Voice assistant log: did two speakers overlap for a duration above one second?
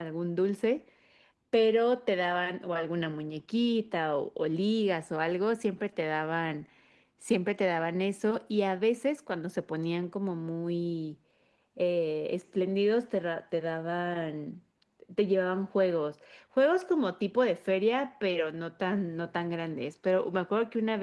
No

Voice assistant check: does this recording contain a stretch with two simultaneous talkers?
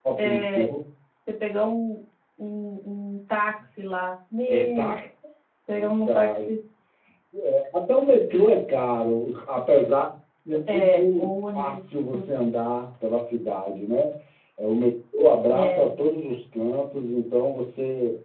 Yes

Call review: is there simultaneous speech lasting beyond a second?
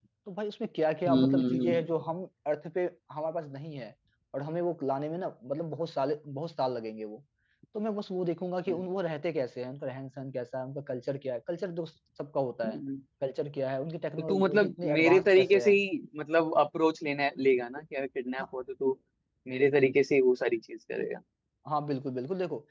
Yes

